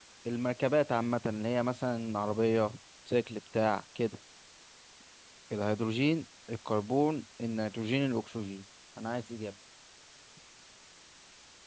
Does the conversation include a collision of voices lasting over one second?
No

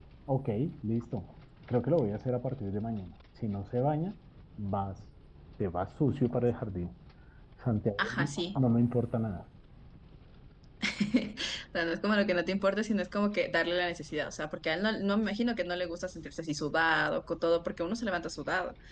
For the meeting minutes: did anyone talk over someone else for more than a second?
No

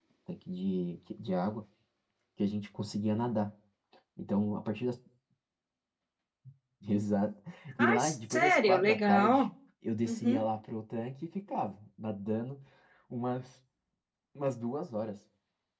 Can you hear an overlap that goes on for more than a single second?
Yes, from 7.8 s

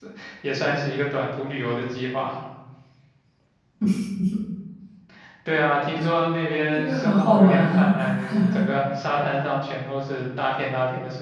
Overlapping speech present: Yes, from 6.8 s

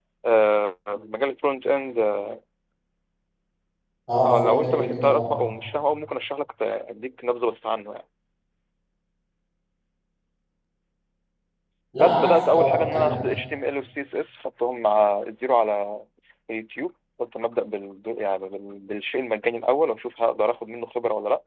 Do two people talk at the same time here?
Yes, from 4.2 s

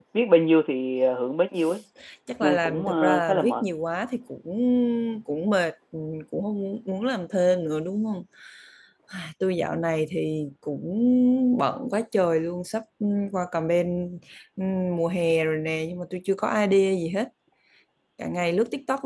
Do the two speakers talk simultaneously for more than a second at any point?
Yes, from 2.4 s

